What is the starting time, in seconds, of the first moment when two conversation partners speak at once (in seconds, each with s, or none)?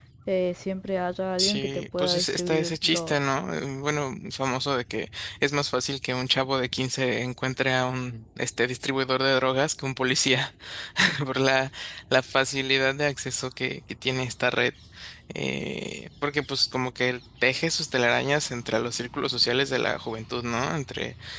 1.4 s